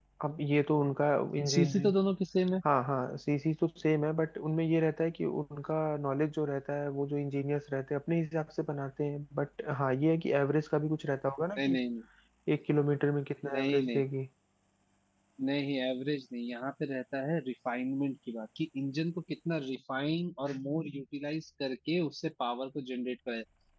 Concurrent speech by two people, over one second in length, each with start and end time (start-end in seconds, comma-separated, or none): none